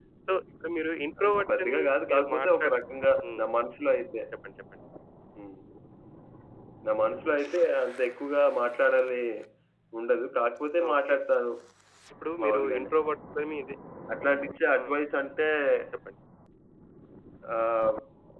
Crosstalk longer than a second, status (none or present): present